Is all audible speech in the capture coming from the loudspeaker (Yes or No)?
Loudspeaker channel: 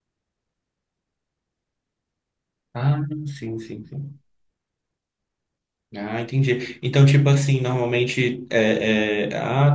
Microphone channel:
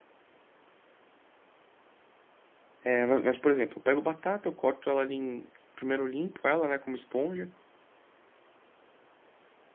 No